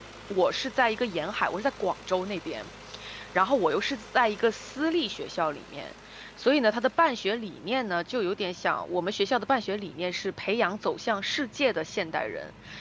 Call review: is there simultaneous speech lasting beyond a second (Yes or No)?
No